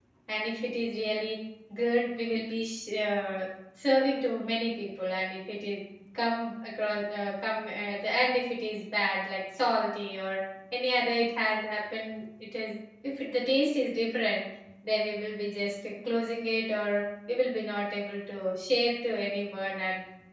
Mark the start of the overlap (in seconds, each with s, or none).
none